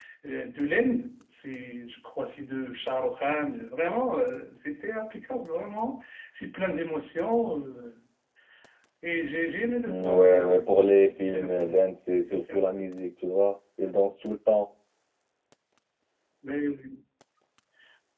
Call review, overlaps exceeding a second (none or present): present